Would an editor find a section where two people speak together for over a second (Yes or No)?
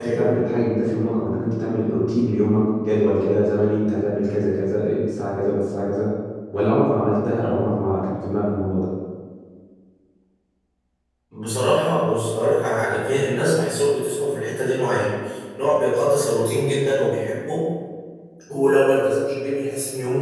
No